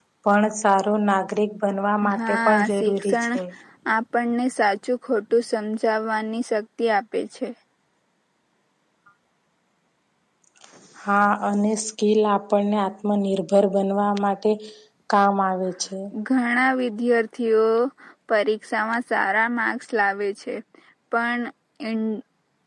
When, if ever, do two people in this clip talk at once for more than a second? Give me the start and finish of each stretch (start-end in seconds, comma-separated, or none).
2.2-3.4